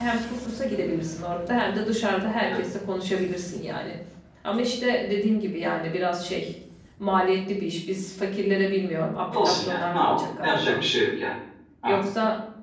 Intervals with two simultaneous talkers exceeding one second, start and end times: 9.3-10.8

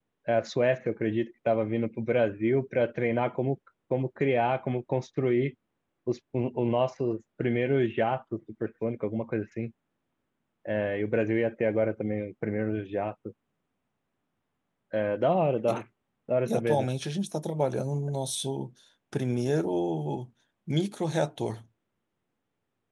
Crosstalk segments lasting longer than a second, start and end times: none

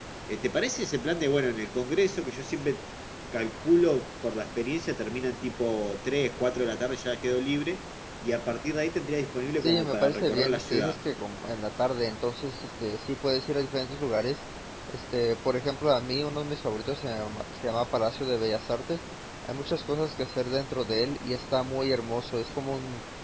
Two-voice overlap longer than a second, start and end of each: 9.6-11.0

